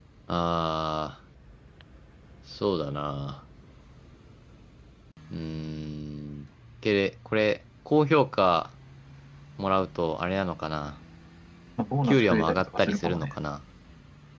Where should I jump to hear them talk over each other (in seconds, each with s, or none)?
12.0 s